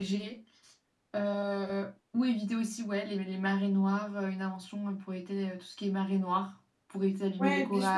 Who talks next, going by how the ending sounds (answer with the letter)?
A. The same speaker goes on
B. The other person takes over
B